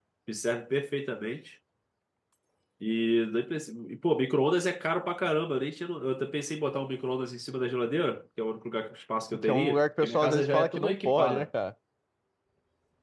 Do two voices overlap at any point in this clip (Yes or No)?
Yes